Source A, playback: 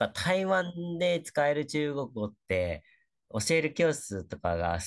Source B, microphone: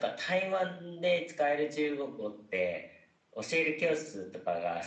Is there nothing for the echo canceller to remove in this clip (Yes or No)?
No